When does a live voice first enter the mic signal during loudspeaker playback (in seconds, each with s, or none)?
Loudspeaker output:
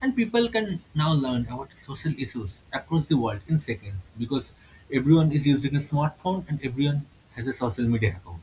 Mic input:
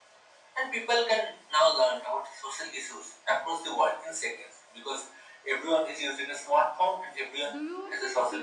7.5 s